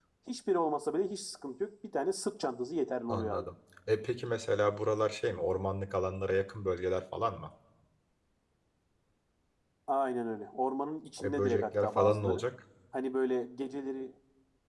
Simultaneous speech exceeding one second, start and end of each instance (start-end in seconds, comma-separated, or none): 11.2-12.4